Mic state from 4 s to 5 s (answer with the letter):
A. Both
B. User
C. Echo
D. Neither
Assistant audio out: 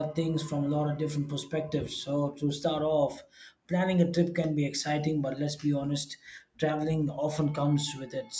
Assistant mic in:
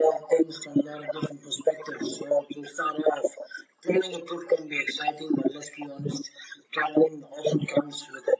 C